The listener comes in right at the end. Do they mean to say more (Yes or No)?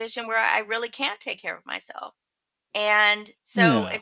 No